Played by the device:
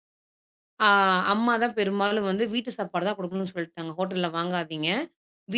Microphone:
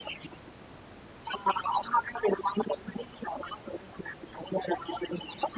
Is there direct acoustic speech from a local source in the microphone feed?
No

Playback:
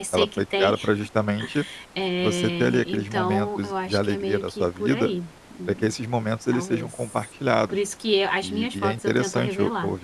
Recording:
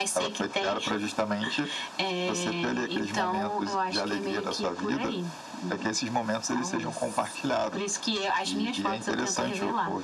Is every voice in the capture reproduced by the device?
Yes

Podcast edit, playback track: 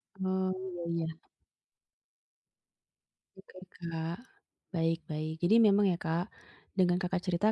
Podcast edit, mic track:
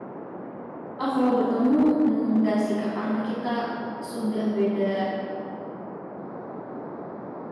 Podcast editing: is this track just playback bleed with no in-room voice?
No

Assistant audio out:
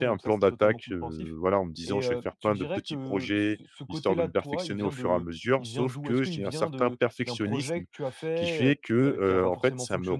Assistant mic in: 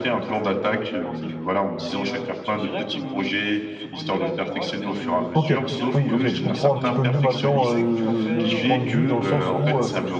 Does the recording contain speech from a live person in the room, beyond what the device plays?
Yes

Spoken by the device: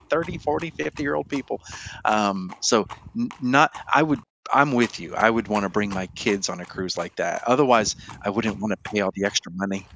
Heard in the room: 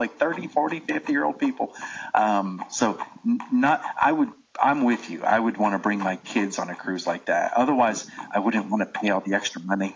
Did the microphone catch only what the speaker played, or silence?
Yes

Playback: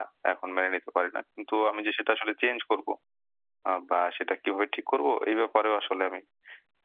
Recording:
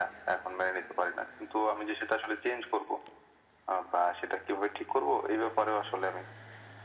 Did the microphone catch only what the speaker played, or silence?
Yes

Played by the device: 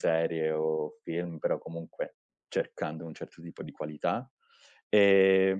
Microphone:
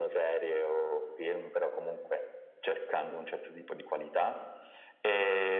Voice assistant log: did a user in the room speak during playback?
No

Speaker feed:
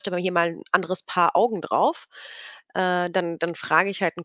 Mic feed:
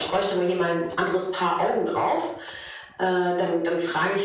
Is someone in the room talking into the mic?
No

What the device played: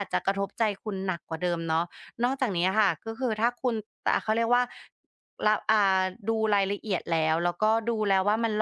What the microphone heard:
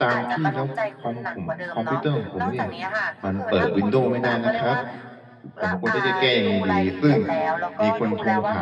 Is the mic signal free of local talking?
No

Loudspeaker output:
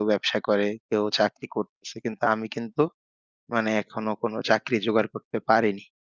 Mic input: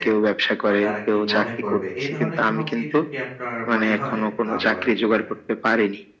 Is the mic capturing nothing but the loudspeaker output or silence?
No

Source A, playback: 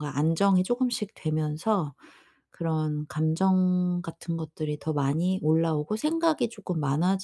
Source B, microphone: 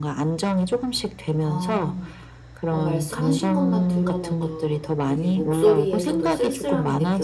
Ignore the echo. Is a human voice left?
Yes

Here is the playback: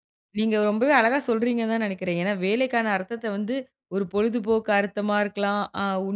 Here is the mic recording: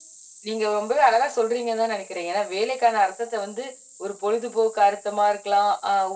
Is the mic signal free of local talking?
Yes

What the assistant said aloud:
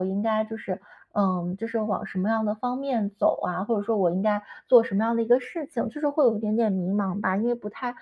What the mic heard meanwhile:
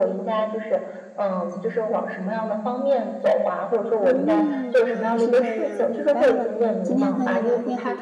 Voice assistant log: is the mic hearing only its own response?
No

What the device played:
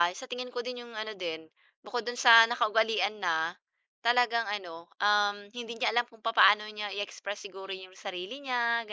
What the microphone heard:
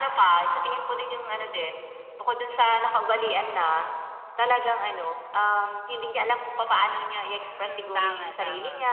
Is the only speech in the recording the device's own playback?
No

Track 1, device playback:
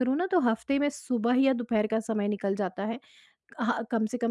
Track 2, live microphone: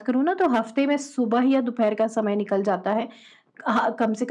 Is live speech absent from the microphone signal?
Yes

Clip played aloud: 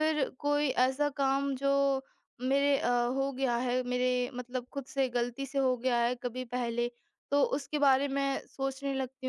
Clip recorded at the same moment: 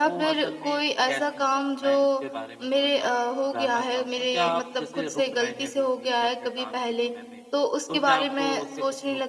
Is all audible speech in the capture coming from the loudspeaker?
No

